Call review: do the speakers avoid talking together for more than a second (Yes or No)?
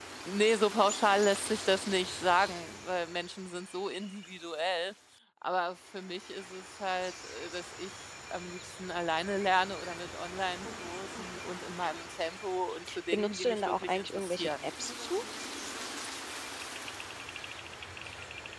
No